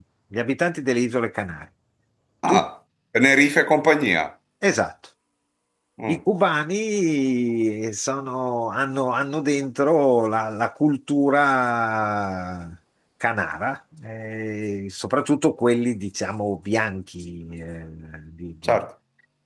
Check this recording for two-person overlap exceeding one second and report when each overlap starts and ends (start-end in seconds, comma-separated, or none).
none